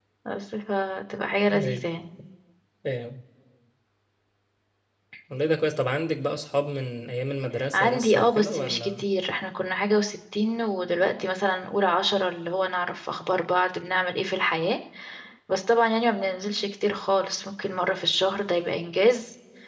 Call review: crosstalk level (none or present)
present